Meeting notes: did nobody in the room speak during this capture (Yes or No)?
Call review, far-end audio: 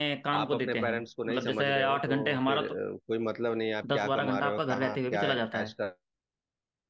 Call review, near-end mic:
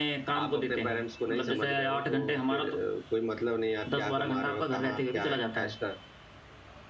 Yes